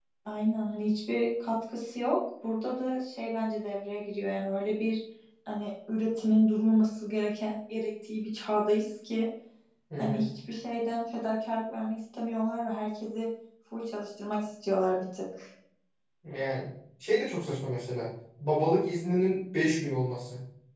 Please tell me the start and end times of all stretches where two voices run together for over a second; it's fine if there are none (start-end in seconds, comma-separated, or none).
none